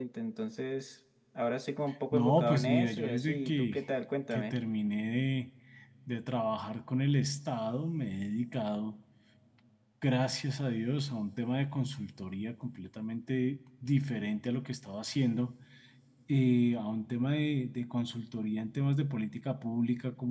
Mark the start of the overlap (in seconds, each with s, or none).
2.1 s